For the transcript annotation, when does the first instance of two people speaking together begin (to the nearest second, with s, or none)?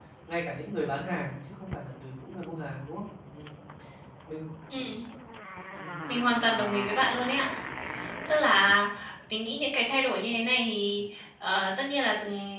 none